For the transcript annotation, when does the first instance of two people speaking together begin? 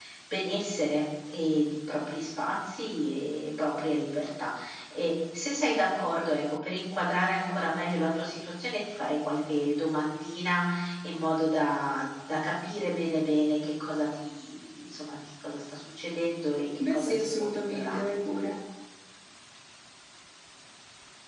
16.8 s

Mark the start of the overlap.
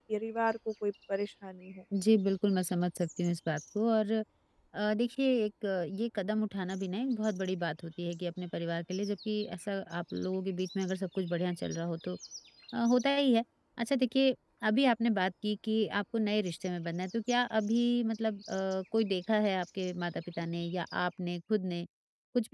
none

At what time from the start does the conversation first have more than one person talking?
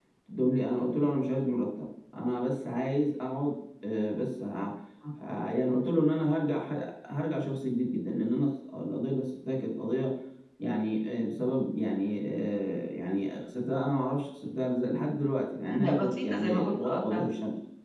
15.7 s

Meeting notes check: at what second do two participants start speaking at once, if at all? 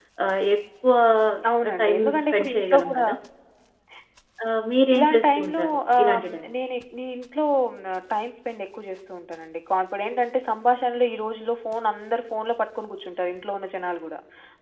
1.8 s

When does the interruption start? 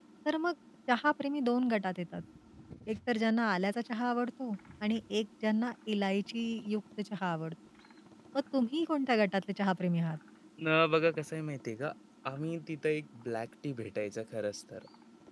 none

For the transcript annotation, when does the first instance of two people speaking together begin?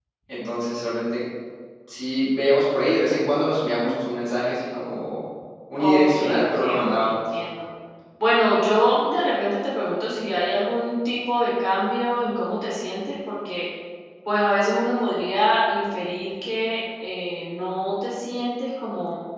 5.8 s

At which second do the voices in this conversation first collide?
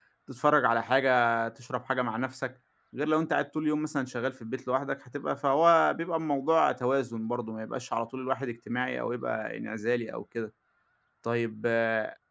none

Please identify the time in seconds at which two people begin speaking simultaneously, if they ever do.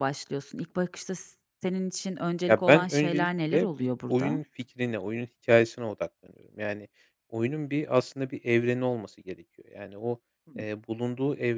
2.5 s

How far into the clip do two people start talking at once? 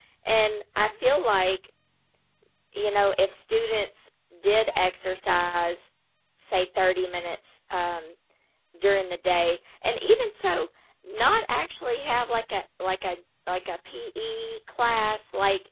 none

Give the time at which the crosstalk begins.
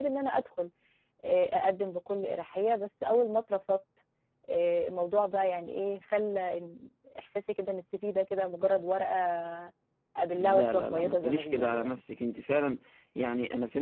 10.3 s

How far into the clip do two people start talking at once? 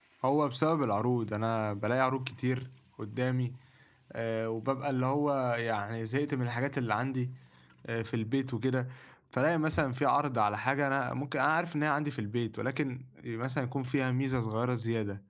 none

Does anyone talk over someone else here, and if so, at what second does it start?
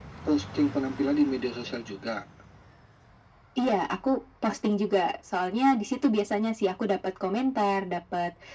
none

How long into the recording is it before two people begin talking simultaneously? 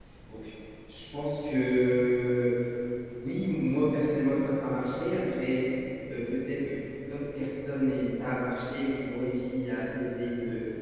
none

